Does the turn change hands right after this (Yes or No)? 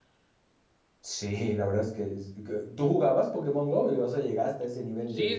Yes